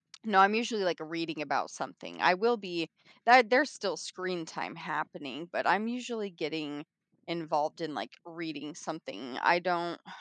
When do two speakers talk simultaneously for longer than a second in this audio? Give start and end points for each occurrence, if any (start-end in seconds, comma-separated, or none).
none